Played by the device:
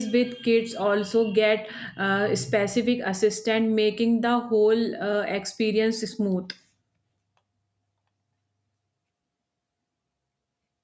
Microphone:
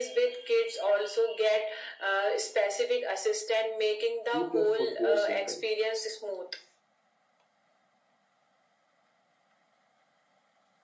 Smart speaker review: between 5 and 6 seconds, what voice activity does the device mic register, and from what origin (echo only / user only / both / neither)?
both